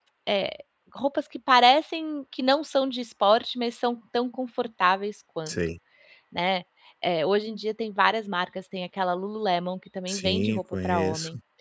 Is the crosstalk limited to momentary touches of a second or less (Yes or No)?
No